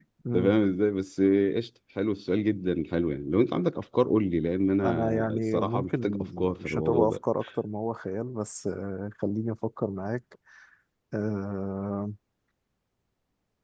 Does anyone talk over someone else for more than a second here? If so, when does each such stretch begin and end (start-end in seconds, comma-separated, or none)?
4.8-7.2